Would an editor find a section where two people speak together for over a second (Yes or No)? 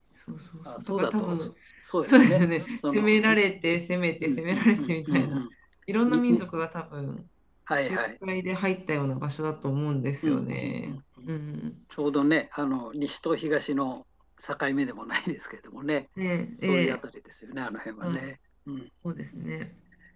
Yes